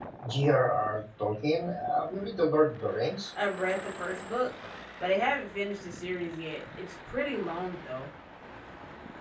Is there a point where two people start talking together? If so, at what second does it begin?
none

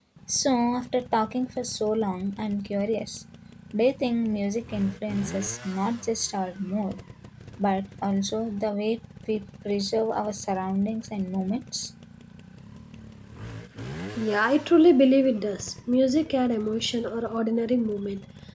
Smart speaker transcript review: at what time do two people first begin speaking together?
none

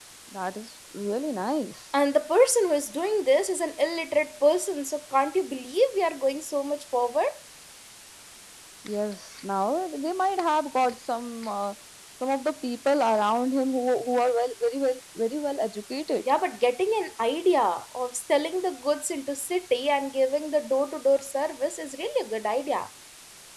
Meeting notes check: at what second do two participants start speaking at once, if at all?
none

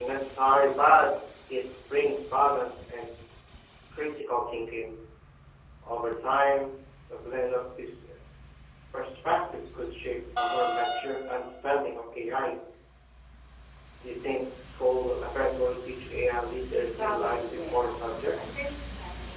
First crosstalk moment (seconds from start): 17 s

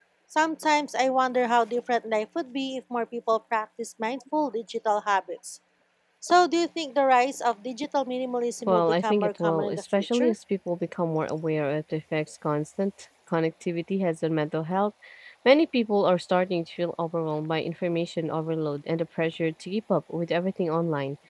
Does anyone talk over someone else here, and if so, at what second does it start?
9 s

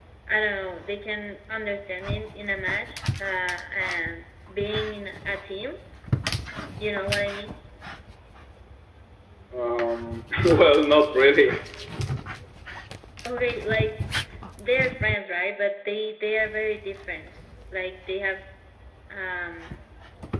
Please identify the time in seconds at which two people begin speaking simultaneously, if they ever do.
none

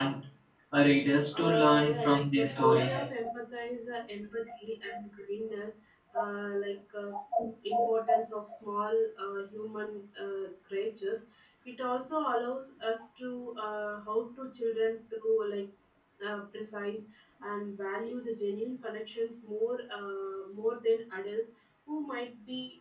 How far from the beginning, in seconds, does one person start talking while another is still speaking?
1 s

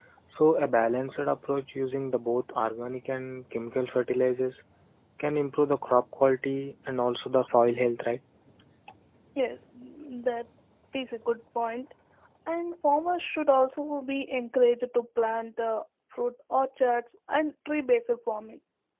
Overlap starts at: none

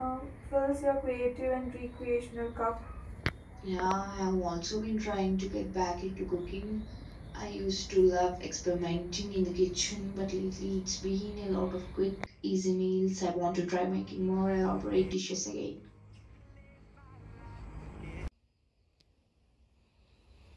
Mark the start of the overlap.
none

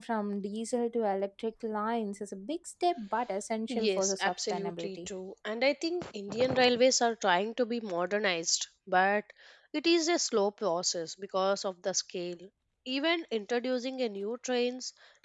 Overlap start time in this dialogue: 4 s

